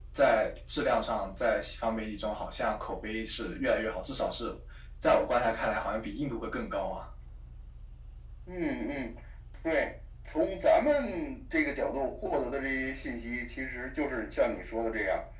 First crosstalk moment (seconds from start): none

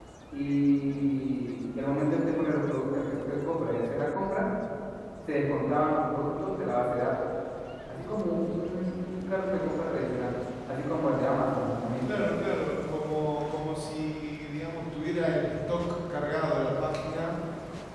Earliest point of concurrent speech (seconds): none

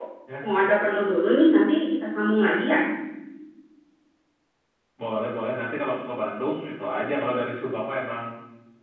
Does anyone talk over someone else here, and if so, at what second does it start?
none

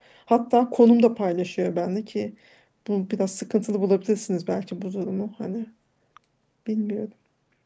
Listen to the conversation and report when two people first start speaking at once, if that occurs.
none

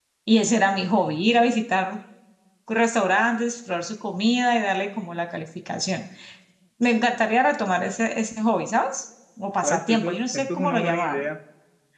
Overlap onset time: 9.6 s

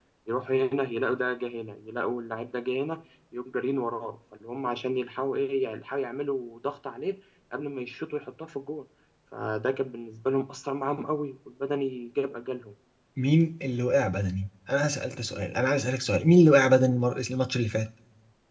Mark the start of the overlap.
none

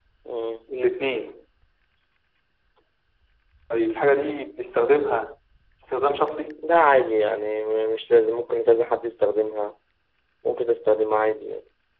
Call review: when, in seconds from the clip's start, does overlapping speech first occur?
none

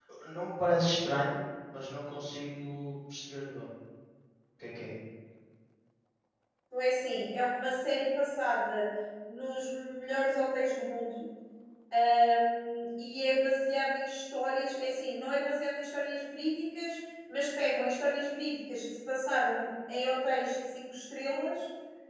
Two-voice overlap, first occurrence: none

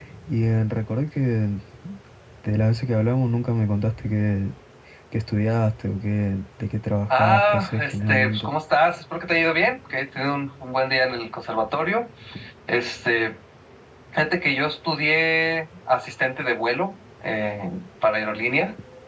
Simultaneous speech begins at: 7.1 s

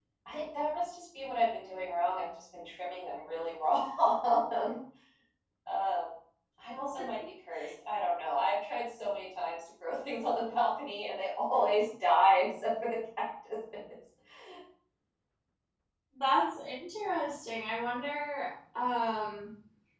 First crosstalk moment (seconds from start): none

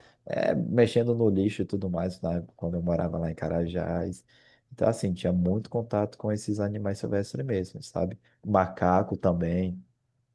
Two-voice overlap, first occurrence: none

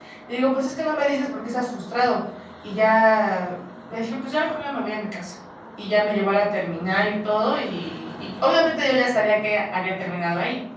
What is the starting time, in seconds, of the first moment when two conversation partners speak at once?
none

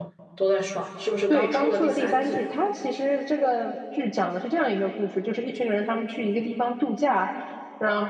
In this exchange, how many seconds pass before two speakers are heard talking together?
1.3 s

